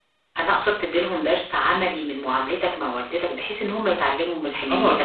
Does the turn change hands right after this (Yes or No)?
Yes